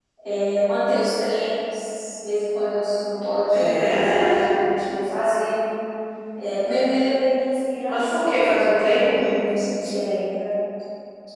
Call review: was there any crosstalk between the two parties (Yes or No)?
Yes